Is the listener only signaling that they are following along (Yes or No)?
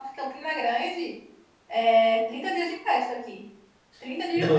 Yes